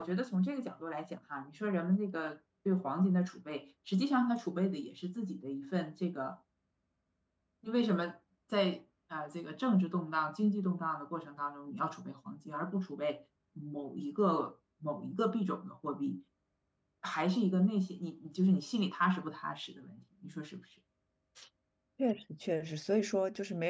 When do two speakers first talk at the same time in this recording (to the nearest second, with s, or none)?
none